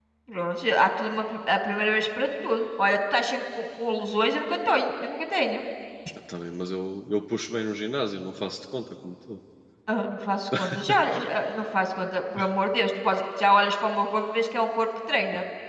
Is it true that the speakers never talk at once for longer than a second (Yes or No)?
Yes